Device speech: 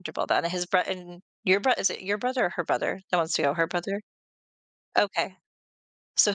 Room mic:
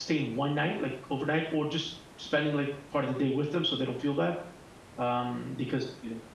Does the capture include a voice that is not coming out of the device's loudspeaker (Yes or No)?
Yes